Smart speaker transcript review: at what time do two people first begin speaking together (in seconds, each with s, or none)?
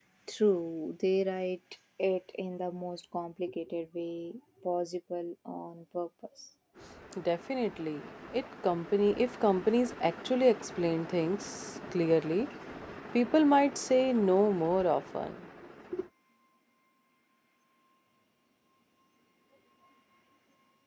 none